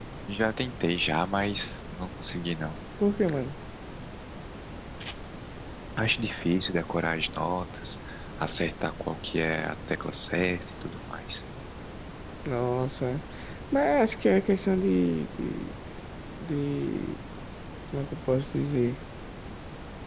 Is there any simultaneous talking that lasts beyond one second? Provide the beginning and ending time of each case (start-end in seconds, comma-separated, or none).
none